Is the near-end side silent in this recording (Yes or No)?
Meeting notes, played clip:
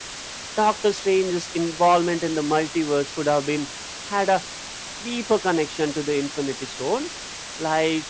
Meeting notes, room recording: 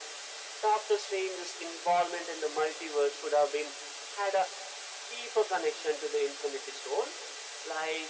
Yes